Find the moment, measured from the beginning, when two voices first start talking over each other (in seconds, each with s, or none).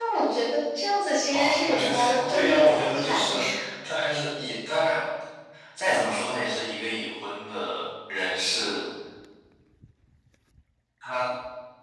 1.3 s